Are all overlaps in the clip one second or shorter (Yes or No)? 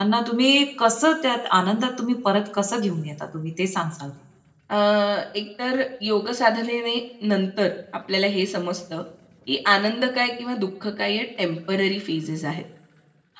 Yes